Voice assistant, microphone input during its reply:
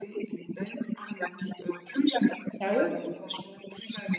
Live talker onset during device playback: 2.5 s

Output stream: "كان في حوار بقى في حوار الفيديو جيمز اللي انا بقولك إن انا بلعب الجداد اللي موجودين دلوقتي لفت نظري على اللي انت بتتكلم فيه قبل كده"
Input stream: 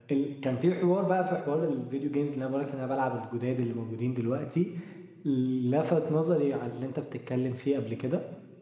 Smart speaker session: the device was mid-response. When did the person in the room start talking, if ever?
none

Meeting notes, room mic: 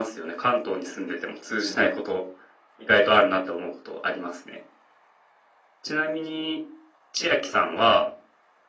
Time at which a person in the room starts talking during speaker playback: none

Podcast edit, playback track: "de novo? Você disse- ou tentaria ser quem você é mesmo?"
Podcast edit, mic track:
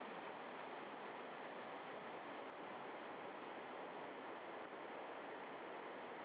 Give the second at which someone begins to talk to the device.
none

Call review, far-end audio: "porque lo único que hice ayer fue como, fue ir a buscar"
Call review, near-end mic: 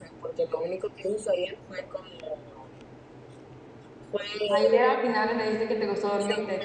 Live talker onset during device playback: 4.5 s

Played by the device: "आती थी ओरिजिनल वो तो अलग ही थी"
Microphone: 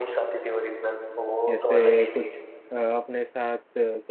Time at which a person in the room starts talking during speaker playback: 1.5 s

